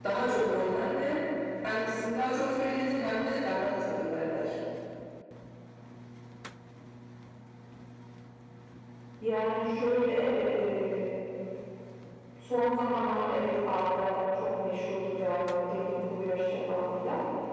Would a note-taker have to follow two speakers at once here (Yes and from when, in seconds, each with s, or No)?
No